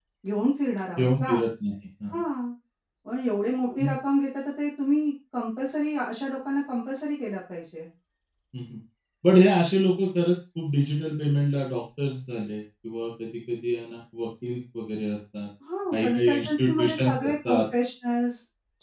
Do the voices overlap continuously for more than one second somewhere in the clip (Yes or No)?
Yes